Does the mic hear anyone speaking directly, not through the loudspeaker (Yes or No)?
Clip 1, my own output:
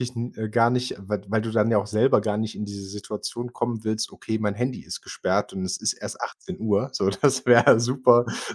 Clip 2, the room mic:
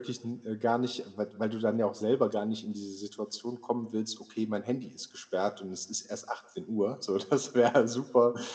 No